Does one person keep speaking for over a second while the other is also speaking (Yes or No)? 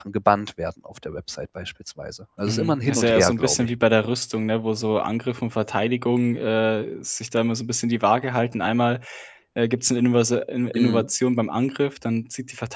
Yes